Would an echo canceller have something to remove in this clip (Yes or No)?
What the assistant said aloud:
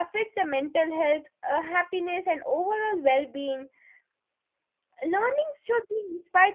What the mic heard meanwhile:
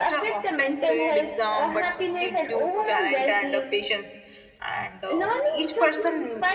Yes